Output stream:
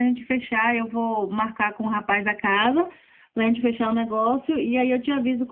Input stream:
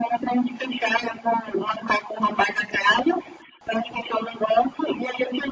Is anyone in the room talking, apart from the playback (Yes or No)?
No